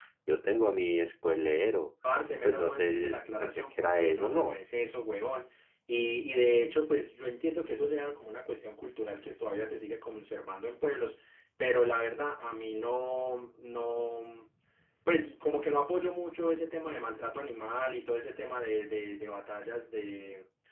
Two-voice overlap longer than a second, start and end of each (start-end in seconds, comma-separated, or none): 2.4-4.6